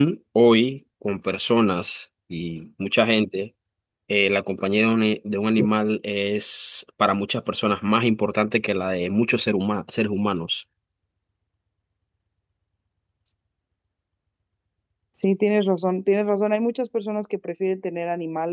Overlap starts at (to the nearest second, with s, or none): none